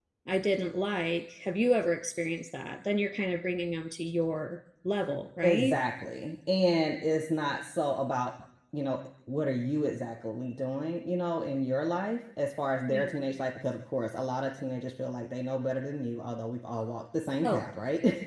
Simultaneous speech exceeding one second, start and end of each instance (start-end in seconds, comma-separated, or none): none